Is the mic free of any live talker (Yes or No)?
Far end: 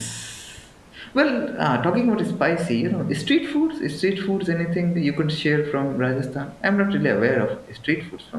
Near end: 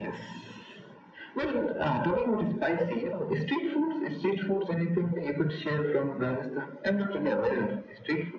Yes